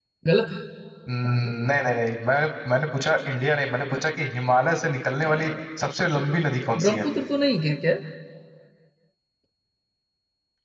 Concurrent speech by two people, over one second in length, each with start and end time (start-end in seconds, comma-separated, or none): none